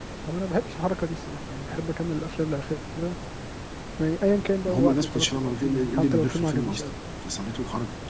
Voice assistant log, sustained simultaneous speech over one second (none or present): present